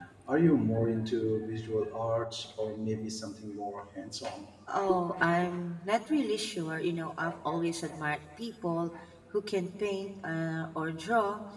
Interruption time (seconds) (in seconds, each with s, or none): none